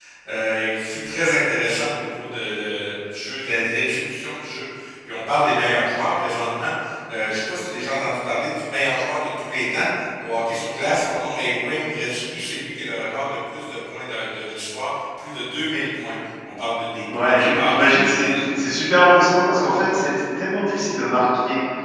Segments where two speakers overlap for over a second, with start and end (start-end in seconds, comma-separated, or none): 17.1-18.4